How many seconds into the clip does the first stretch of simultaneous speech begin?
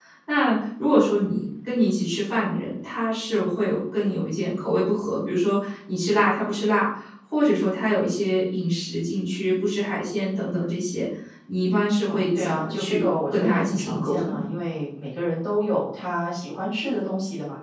12 s

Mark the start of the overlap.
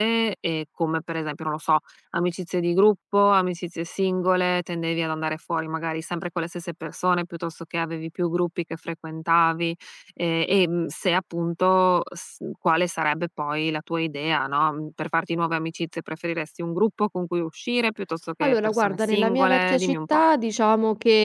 18 s

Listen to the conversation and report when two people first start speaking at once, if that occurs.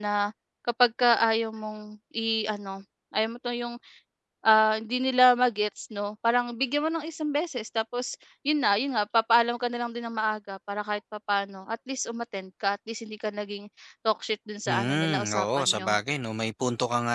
15 s

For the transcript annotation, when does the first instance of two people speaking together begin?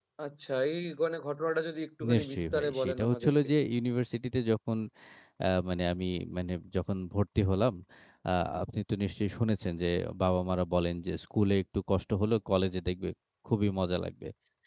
2 s

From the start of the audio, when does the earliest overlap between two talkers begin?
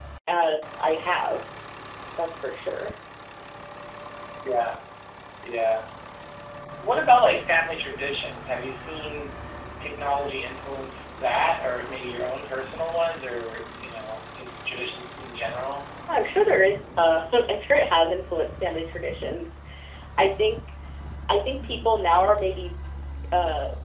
none

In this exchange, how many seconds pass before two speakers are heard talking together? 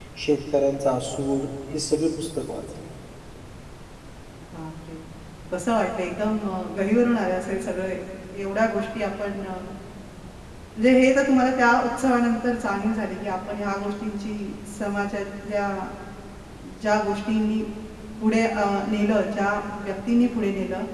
none

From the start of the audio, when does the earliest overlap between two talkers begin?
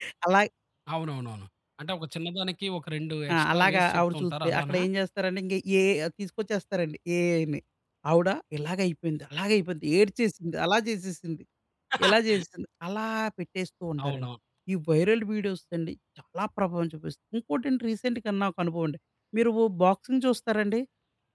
3 s

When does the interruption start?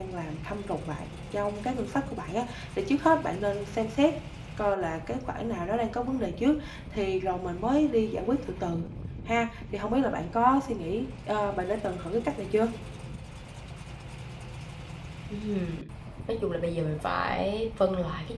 none

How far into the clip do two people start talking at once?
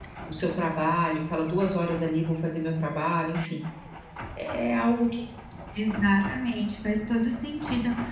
none

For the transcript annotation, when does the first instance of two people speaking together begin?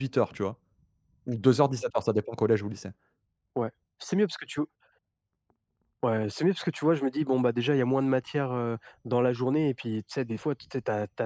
none

